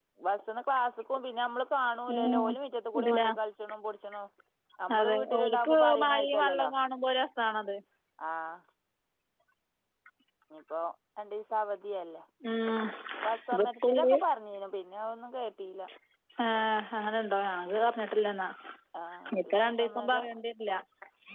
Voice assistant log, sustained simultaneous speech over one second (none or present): present